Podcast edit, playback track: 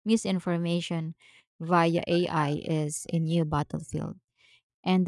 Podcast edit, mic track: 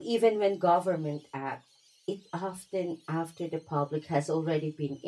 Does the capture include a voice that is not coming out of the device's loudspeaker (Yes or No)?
Yes